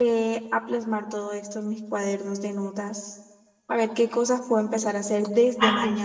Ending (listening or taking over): listening